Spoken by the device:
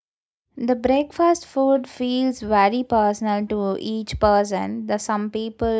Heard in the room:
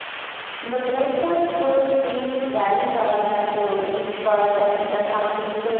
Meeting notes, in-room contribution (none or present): none